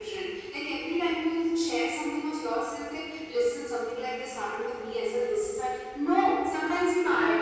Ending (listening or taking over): listening